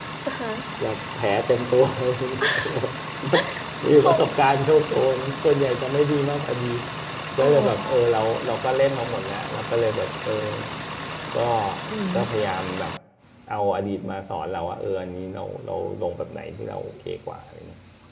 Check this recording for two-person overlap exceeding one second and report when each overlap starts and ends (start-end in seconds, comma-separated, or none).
none